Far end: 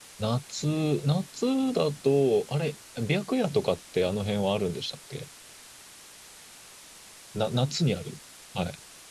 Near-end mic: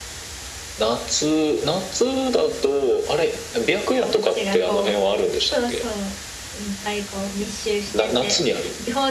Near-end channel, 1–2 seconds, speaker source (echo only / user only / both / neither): echo only